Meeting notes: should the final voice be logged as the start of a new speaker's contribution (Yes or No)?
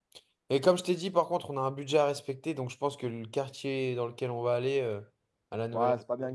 Yes